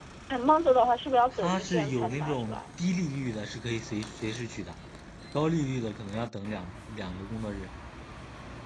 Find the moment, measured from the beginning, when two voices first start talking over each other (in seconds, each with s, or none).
1.3 s